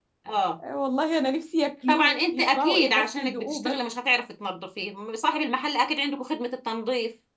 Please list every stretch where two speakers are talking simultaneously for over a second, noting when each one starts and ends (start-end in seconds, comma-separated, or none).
1.9-3.8